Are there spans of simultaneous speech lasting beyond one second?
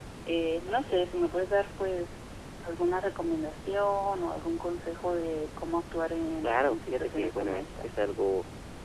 Yes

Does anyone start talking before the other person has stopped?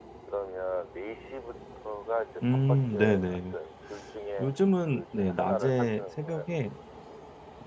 Yes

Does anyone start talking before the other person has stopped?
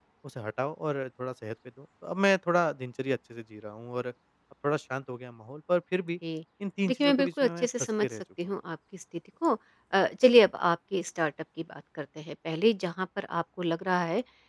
Yes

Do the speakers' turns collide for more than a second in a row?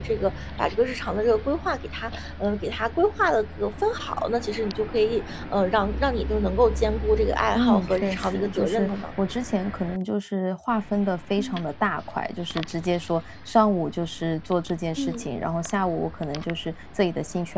Yes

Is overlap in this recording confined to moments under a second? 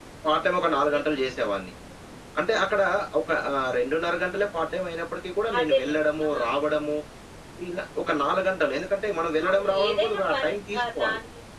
No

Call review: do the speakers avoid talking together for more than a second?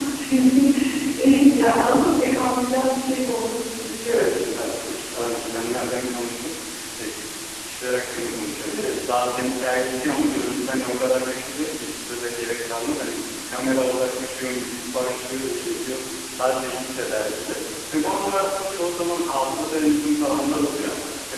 No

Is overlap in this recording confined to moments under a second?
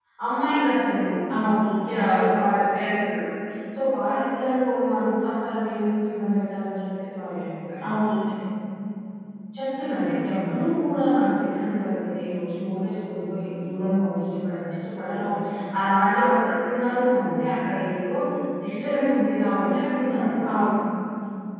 Yes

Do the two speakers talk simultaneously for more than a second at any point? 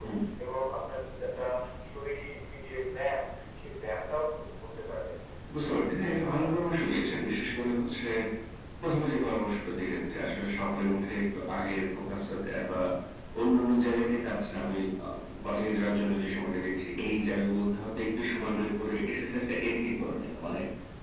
No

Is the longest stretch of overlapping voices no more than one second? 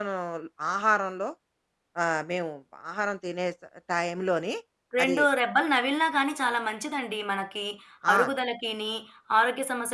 Yes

